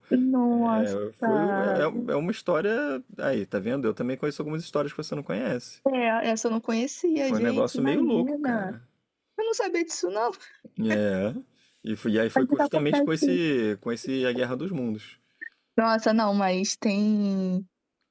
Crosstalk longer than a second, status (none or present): present